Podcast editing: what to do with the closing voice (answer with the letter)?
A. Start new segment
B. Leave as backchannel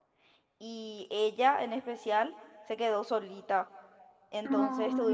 B